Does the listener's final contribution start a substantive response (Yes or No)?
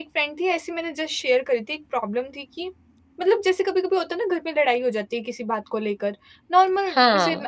No